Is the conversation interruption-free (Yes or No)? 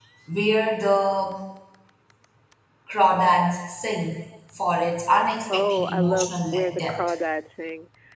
No